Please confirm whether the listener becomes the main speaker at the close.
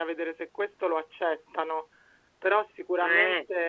No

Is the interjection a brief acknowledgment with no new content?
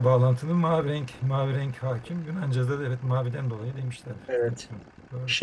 No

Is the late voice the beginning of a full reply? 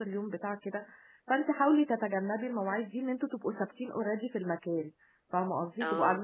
No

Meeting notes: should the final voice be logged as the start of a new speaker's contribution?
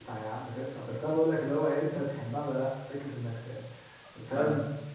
No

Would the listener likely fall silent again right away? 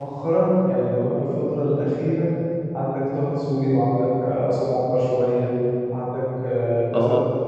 Yes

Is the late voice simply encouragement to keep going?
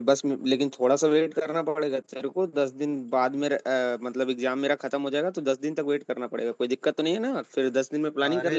No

